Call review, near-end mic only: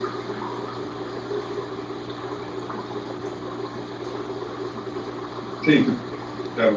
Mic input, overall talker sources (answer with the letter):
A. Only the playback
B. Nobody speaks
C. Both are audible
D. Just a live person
D